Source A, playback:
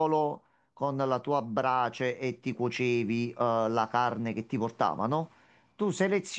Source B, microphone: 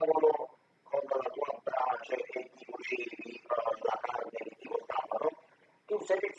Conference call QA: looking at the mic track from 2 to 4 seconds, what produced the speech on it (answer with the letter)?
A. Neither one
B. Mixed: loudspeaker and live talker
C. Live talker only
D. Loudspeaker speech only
D